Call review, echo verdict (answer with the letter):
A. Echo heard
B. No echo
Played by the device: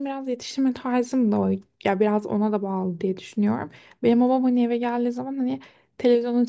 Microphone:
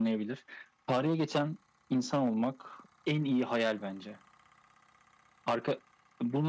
B